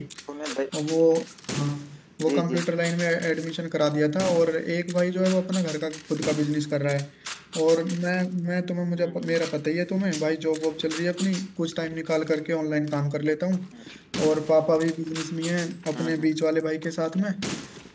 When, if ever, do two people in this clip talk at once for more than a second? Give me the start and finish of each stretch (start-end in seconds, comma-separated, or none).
none